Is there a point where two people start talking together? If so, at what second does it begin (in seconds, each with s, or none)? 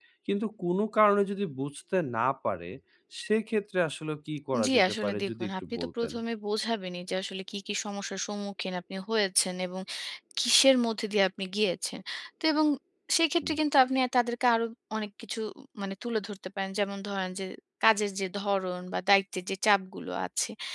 4.5 s